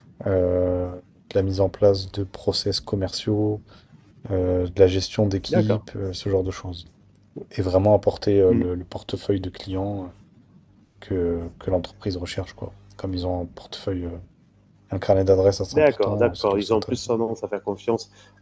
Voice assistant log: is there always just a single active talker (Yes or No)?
No